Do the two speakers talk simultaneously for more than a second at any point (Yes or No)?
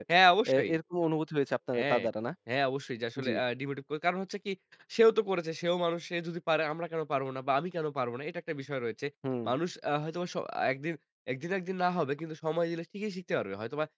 No